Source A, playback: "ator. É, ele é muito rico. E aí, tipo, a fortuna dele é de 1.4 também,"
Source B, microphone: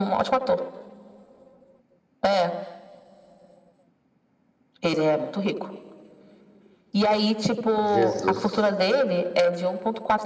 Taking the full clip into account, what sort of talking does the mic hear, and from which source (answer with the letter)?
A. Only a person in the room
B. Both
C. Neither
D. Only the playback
B